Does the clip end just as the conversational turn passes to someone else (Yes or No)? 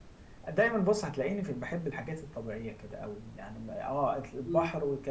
No